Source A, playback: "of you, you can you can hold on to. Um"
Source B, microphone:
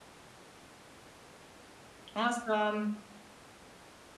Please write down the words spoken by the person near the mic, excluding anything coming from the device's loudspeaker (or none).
Awesome.